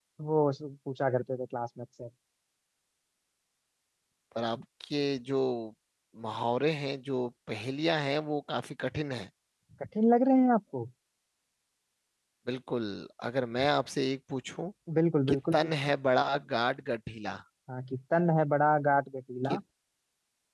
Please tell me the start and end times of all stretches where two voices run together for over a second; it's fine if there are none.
none

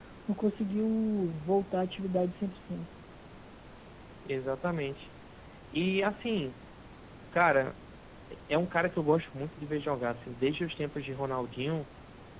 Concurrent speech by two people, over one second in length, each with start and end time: none

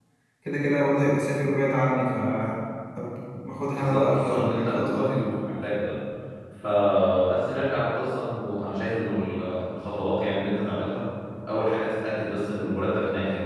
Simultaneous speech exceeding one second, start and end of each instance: 3.8-5.1

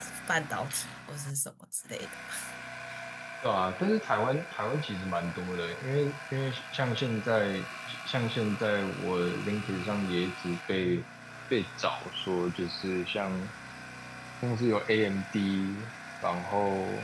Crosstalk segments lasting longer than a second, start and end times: none

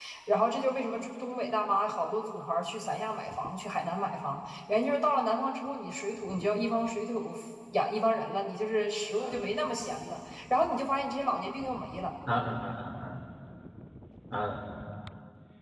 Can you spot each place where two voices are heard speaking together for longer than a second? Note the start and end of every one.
none

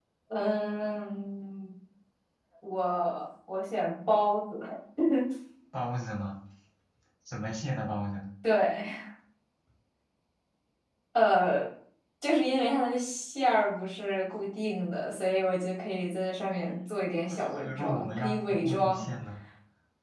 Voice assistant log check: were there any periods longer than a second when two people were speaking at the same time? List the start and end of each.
17.5-19.1

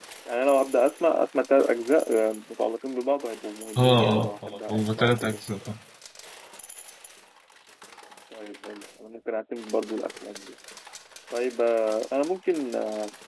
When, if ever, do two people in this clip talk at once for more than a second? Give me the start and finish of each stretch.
3.8-5.4

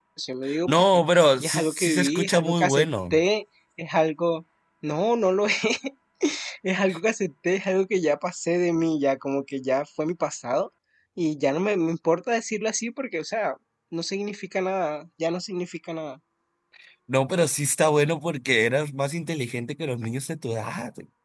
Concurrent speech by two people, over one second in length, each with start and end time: 0.7-3.1

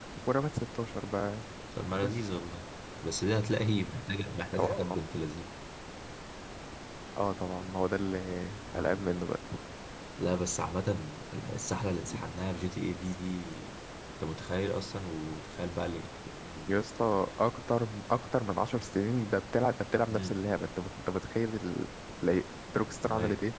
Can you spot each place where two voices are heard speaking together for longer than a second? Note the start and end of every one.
none

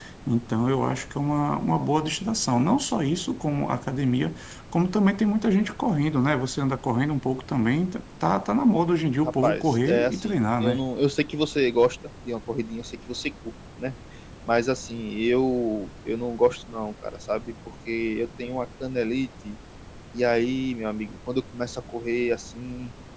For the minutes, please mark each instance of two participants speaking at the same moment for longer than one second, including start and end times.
9.2-10.8

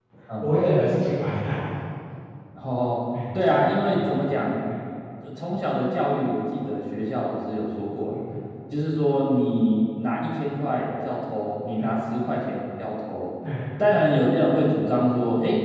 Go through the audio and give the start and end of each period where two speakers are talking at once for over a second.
none

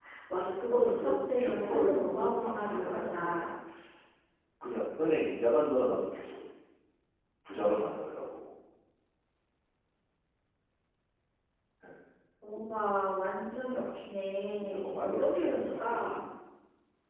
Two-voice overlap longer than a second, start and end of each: 0.7-3.4, 14.6-16.2

